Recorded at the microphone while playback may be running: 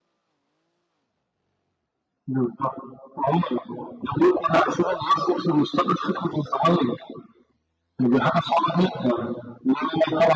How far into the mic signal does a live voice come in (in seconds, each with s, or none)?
none